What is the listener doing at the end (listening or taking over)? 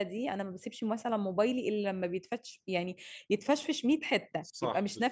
taking over